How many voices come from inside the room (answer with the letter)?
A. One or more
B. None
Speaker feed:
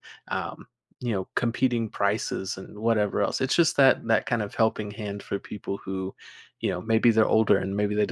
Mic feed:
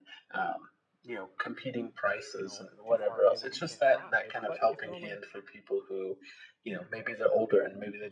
A